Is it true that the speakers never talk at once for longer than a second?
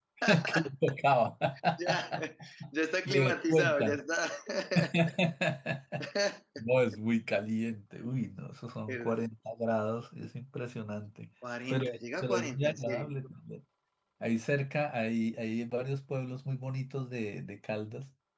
No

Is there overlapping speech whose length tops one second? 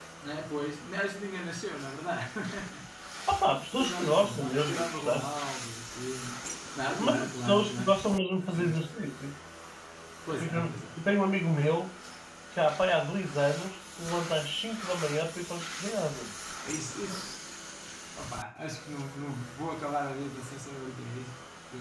Yes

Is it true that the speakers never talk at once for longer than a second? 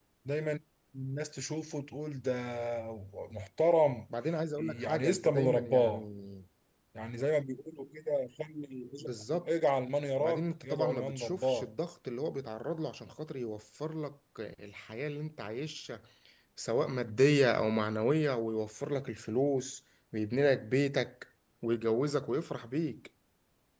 No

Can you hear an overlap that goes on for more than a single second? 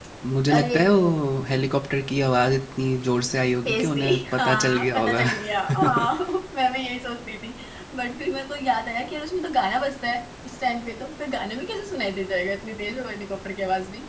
Yes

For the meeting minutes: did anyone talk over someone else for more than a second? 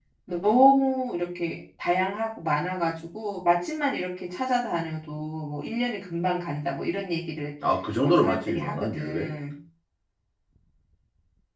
Yes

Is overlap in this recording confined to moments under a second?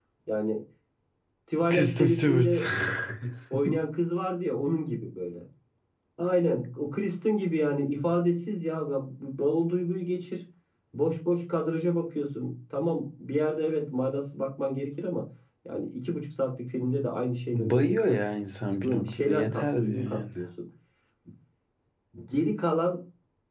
No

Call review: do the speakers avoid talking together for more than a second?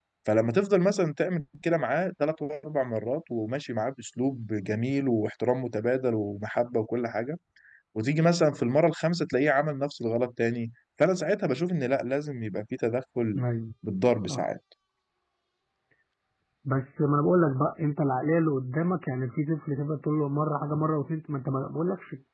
Yes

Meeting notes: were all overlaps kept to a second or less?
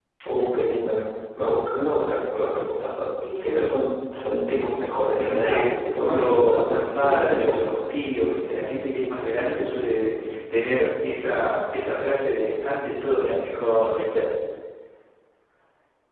No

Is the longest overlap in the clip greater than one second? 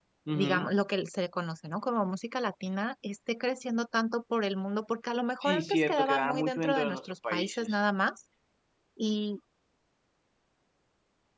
Yes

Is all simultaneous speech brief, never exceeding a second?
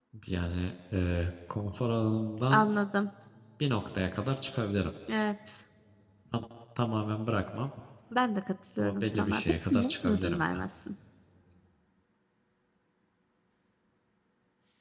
No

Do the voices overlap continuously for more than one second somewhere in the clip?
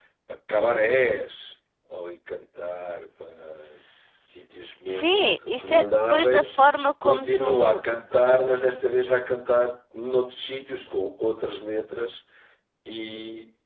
Yes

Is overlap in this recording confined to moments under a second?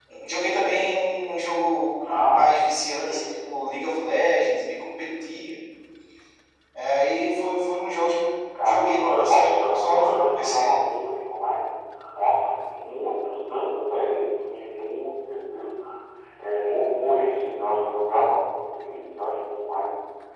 No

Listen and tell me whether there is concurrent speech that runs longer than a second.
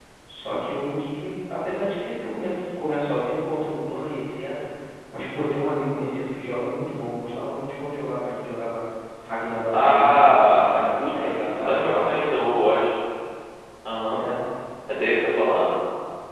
Yes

